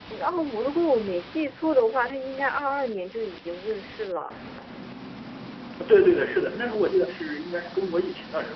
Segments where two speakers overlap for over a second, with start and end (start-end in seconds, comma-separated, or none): none